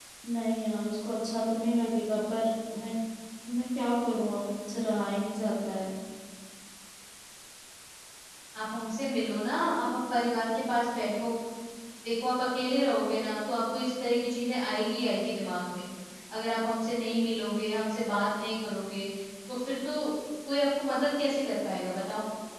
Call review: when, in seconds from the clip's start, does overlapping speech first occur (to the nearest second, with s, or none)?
none